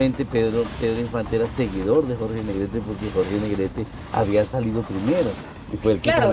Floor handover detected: Yes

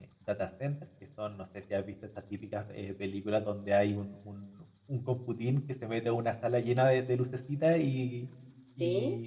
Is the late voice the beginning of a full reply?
No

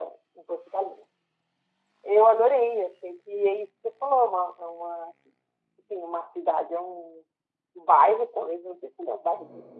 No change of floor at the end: Yes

